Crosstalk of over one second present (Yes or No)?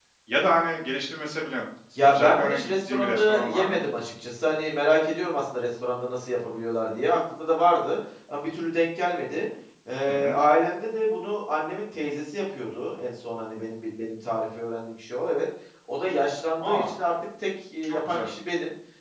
Yes